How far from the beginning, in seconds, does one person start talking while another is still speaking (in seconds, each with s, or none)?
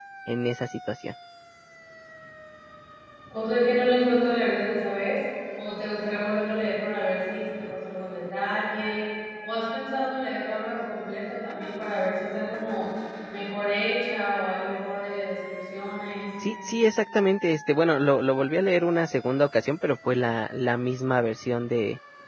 none